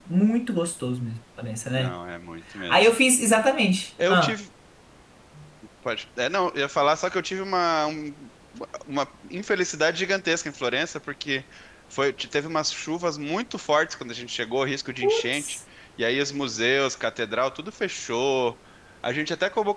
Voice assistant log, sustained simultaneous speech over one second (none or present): none